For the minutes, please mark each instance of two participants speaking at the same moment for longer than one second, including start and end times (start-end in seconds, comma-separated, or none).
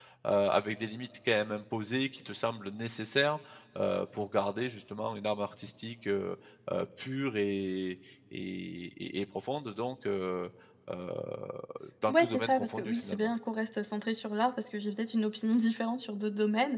12.1-13.3